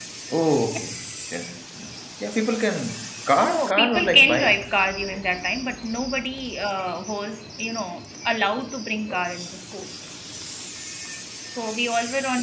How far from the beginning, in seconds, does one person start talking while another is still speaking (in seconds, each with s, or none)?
3.4 s